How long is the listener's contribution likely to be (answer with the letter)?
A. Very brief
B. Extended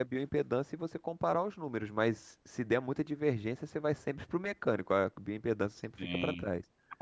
B